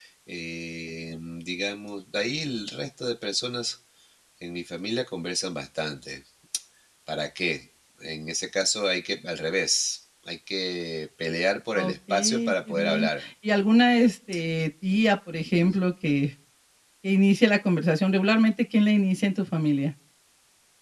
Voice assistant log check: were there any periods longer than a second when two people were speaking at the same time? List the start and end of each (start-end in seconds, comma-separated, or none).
11.8-13.2